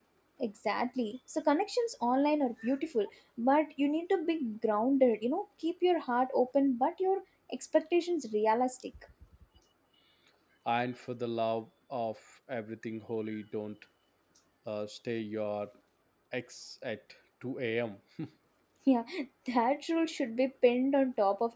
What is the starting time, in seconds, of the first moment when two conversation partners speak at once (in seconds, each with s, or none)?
none